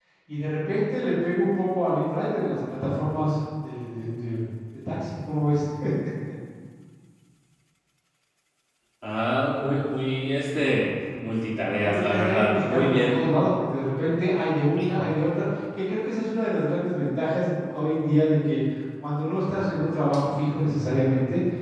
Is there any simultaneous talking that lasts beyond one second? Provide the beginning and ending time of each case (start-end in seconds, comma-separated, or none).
11.8-13.2